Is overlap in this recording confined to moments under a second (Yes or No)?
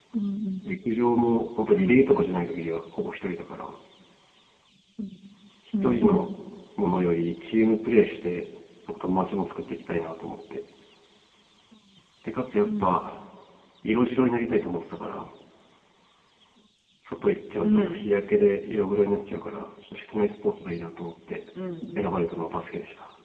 Yes